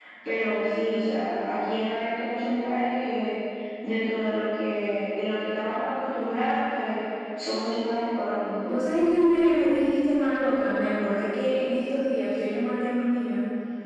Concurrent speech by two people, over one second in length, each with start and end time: none

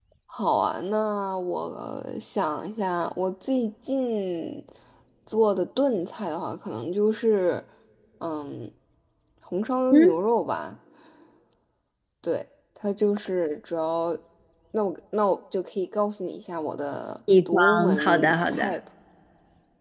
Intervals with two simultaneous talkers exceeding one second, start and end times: 17.5-18.7

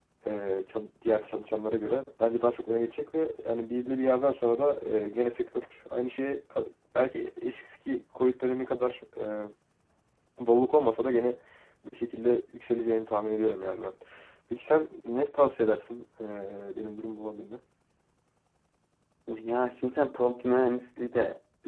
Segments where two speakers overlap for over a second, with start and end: none

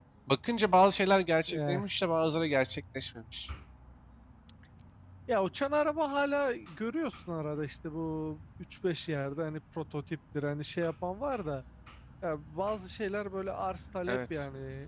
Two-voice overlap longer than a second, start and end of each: none

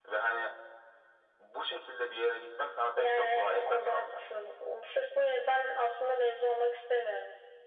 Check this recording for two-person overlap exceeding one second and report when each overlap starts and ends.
3.0-4.2

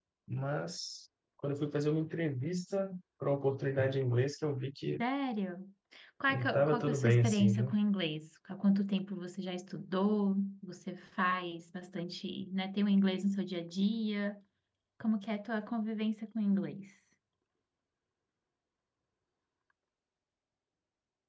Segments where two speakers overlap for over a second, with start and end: 6.3-7.8

